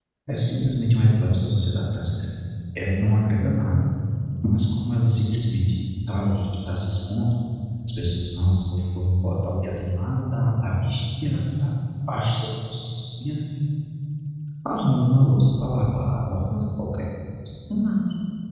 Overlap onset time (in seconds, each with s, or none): none